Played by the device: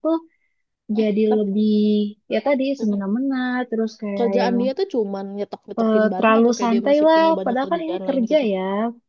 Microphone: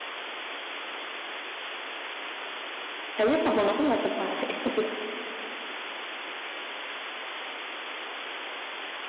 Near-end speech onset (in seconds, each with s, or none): 3.1 s